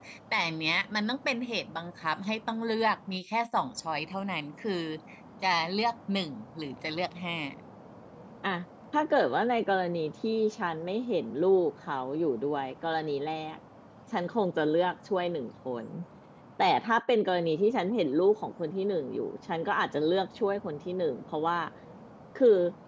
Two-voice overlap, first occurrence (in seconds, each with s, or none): none